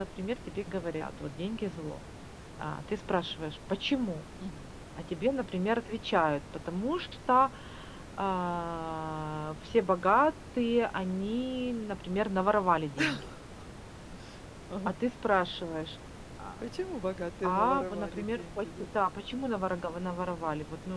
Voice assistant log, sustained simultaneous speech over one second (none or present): present